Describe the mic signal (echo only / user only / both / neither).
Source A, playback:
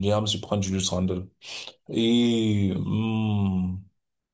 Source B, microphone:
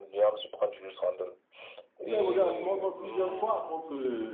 both